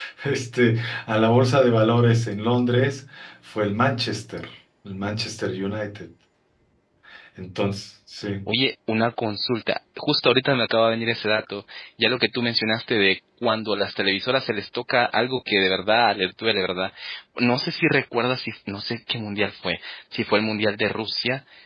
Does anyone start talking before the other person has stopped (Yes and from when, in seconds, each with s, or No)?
No